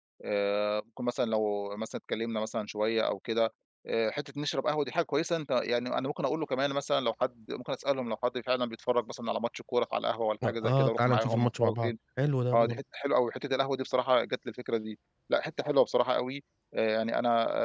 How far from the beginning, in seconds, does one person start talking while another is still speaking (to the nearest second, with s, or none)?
10 s